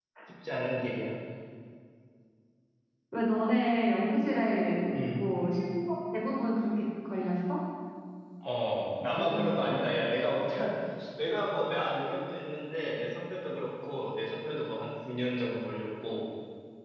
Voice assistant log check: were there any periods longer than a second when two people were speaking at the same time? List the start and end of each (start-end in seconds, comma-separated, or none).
none